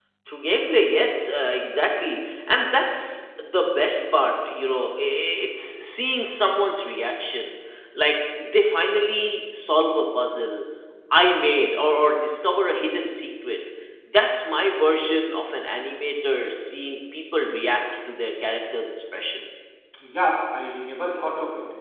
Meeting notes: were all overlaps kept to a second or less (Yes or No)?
Yes